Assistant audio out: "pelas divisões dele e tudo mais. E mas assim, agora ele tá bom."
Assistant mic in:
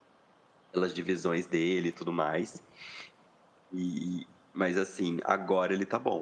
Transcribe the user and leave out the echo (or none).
none